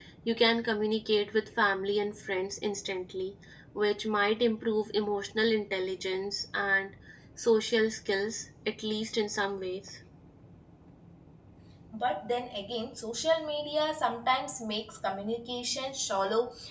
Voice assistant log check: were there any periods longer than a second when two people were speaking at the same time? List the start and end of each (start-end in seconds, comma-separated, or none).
none